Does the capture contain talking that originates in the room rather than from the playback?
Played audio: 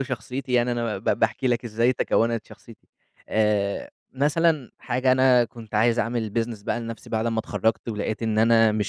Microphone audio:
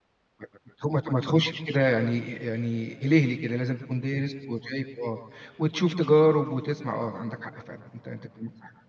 Yes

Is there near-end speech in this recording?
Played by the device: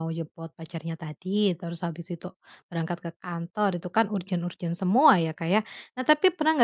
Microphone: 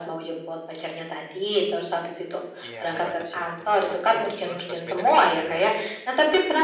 Yes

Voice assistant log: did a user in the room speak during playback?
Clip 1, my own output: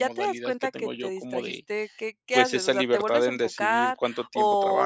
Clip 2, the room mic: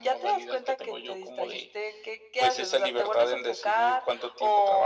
No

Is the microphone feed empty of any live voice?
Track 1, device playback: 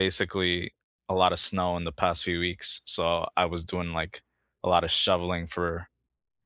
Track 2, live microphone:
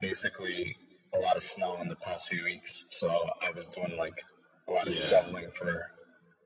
No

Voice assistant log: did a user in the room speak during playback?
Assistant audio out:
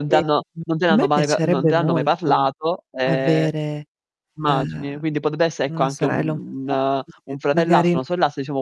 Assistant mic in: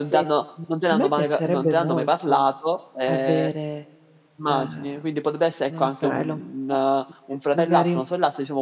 No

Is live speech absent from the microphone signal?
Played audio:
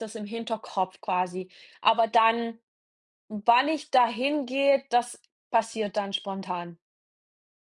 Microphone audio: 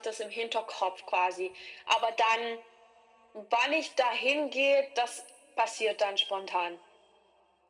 Yes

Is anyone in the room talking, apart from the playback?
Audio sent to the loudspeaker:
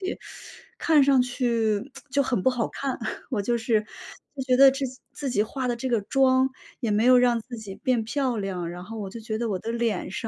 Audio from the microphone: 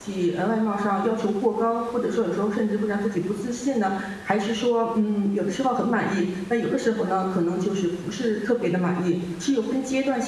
Yes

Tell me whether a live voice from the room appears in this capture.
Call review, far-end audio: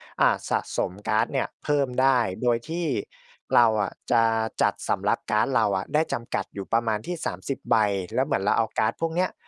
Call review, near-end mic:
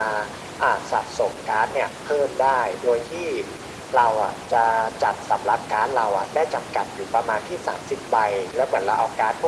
No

